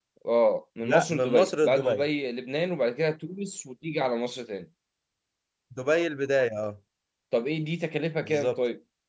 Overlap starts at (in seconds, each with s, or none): 0.8 s